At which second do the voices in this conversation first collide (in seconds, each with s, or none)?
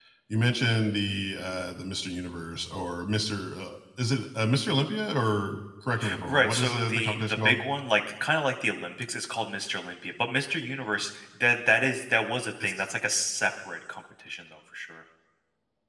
6.2 s